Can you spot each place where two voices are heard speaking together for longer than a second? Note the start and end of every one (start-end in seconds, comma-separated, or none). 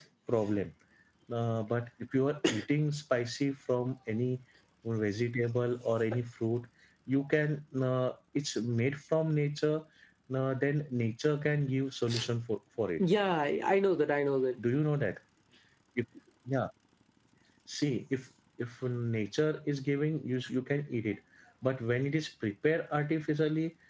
none